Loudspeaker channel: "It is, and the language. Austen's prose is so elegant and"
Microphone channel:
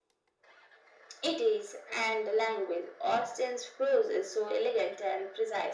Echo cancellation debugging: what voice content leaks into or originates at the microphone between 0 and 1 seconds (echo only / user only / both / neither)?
neither